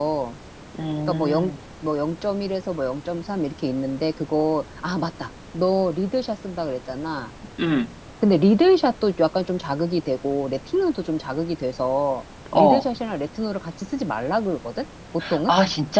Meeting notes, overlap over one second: none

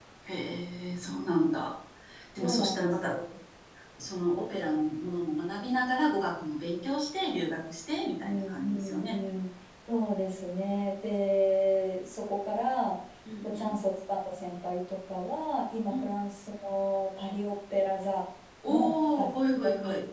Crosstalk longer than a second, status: present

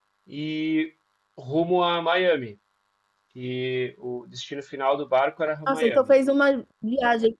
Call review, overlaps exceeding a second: none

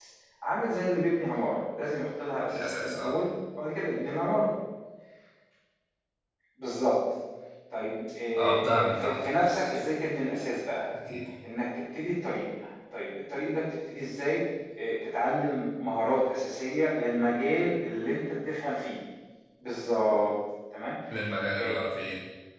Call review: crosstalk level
present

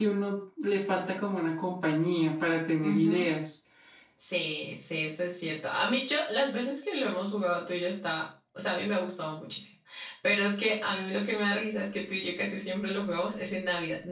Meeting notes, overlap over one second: none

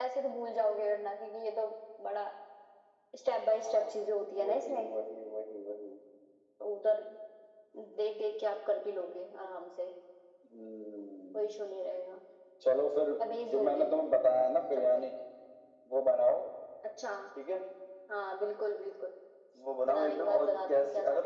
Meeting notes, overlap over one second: present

